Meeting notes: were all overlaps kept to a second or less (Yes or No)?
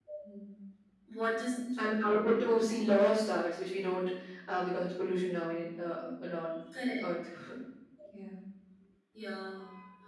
Yes